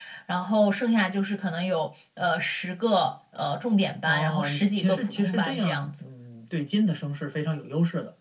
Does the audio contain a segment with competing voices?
Yes, from 4.0 s

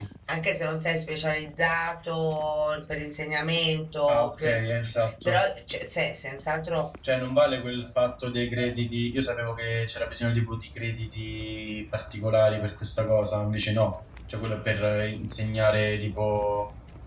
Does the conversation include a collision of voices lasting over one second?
No

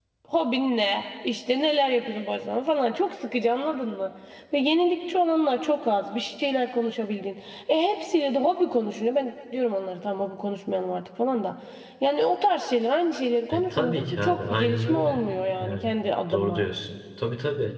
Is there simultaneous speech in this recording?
Yes, from 13.5 s

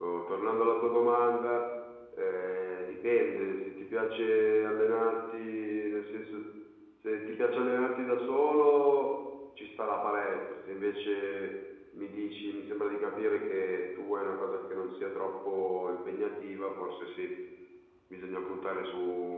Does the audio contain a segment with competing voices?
No

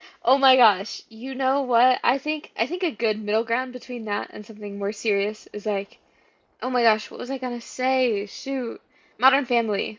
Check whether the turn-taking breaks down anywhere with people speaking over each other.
No

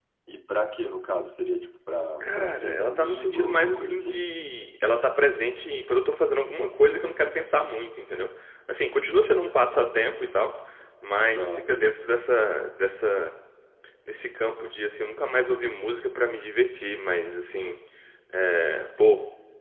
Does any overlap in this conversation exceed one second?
Yes, from 2.2 s

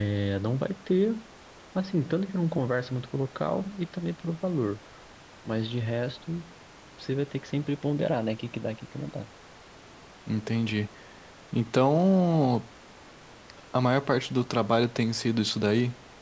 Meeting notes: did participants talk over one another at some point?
No

